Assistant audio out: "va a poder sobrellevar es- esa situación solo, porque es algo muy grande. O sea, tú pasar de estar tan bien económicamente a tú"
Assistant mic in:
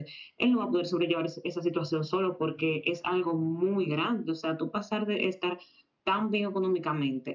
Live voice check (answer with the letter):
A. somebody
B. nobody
B